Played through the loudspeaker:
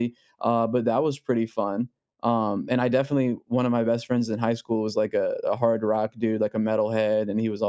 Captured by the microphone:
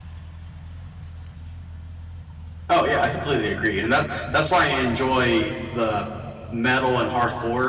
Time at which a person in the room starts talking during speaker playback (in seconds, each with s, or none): 2.7 s